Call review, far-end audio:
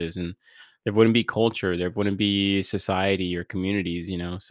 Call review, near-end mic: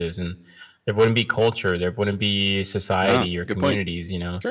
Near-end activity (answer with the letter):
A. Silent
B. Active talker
B